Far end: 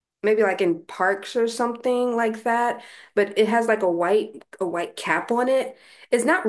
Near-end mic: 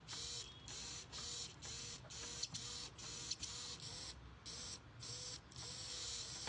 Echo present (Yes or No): No